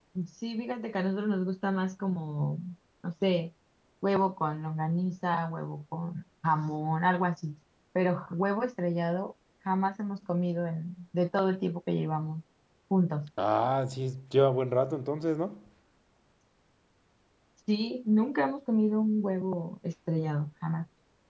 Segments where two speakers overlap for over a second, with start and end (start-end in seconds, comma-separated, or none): none